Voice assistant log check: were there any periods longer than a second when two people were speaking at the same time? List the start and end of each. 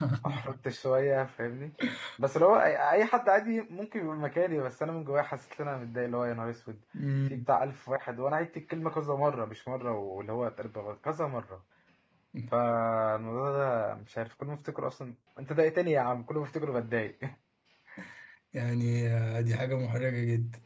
none

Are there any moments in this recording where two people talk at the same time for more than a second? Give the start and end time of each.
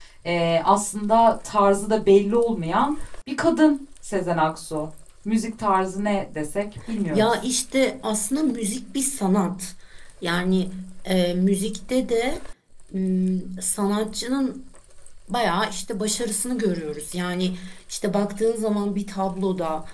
none

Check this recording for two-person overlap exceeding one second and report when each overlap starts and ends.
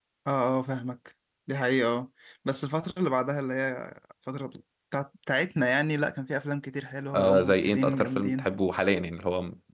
7.1-8.5

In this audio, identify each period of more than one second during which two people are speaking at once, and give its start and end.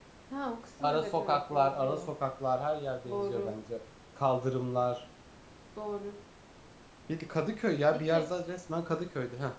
0.9-2.1

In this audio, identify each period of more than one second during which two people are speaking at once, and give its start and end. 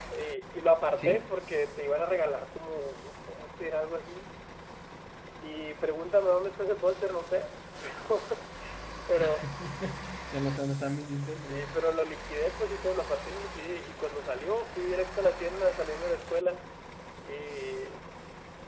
none

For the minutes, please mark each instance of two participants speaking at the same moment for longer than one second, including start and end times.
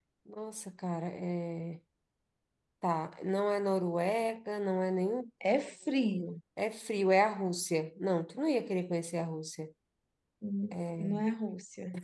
none

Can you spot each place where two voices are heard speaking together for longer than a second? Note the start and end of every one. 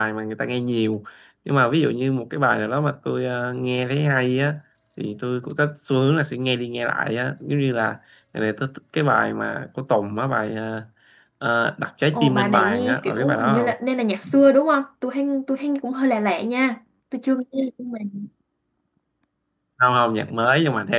12.1-13.7

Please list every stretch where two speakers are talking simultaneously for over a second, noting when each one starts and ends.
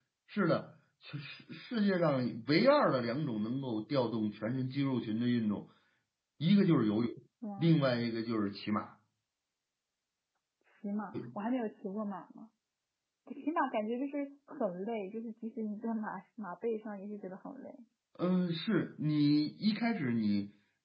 none

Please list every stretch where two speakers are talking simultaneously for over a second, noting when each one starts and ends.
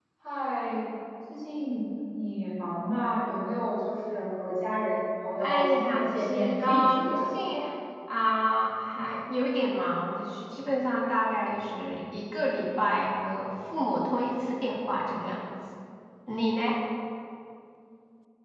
5.4-7.1

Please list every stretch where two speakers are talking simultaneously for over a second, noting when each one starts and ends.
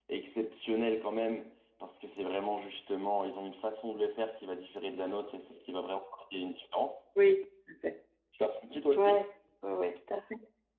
none

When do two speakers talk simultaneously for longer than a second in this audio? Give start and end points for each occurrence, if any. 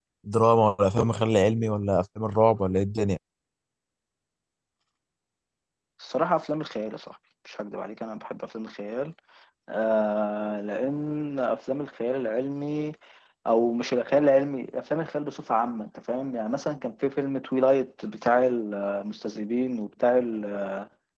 none

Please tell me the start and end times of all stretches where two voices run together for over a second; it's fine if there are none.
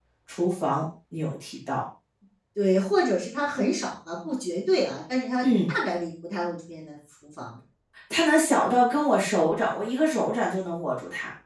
none

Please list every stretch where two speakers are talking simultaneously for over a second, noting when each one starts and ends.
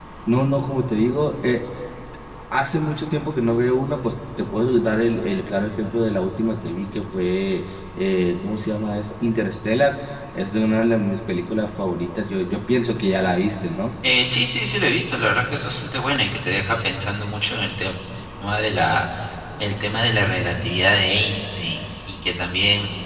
none

